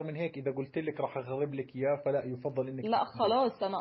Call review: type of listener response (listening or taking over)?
taking over